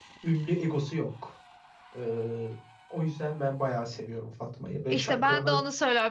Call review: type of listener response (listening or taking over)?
taking over